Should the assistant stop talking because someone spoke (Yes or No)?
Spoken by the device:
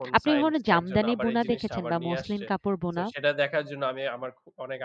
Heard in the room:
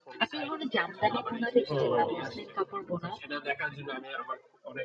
Yes